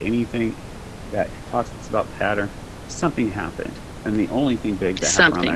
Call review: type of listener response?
listening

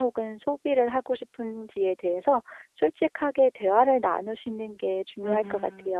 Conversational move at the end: taking over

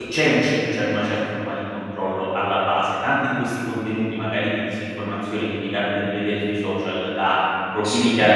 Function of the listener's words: listening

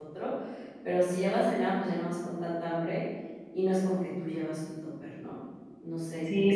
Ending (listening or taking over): taking over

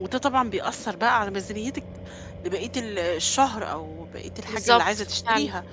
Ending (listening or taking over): listening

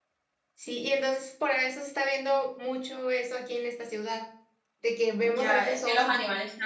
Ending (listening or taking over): taking over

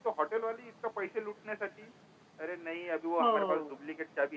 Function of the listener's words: listening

